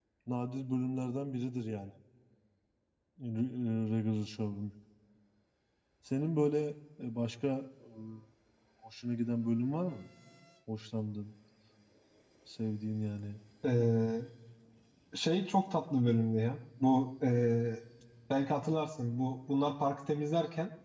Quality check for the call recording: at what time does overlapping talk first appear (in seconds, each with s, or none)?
none